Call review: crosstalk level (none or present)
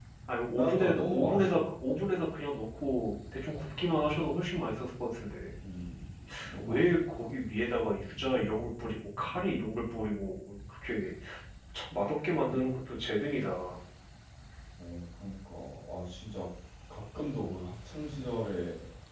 present